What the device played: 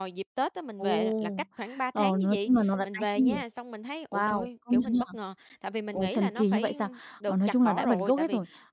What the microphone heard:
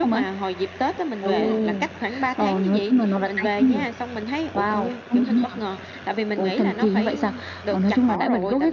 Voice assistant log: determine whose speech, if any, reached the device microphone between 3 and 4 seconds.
echo only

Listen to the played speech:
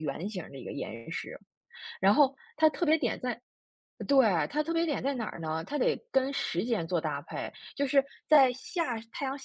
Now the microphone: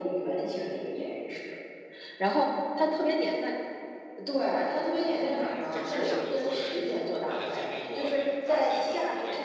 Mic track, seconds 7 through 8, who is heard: both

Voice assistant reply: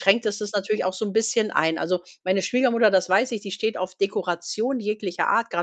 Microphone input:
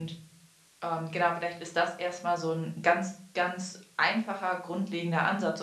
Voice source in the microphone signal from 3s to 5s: user only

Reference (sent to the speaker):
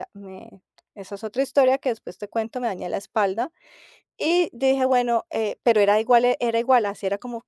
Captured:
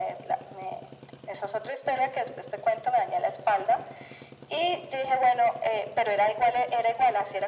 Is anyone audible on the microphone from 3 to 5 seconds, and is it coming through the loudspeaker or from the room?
echo only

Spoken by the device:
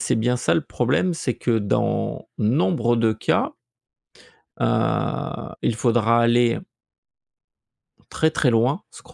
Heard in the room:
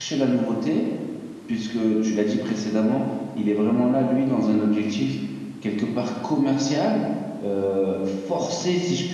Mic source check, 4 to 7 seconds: user only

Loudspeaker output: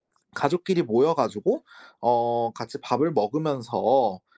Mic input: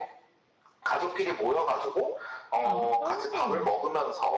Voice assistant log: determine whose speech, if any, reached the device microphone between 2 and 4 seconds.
both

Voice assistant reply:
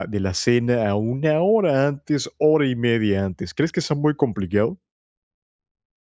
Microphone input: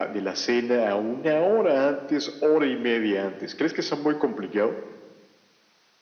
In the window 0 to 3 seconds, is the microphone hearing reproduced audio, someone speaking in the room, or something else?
echo only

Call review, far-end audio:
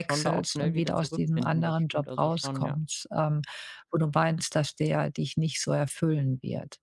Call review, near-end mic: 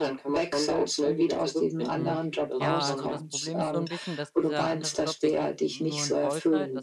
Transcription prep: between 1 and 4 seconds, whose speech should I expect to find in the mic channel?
both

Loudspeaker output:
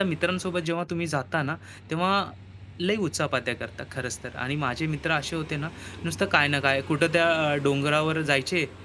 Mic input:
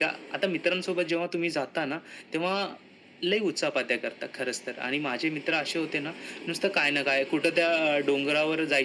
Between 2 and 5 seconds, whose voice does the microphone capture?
echo only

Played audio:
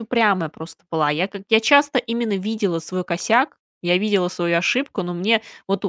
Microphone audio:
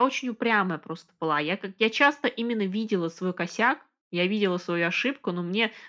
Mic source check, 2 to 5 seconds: echo only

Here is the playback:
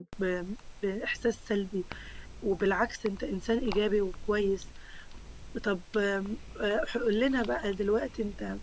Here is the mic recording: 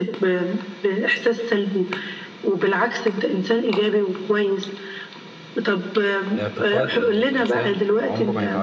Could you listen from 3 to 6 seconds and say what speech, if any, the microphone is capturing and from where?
echo only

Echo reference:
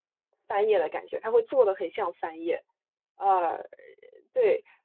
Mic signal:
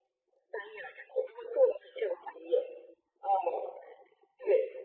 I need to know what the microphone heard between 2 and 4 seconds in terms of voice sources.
echo only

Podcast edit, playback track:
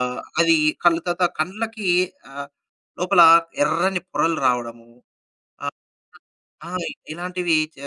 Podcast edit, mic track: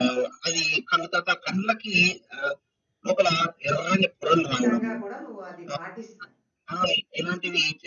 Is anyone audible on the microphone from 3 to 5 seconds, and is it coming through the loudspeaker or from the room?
both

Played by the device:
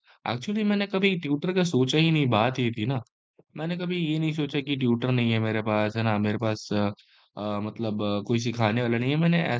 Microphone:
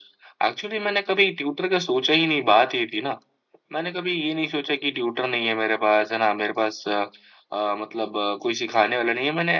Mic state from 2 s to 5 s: echo only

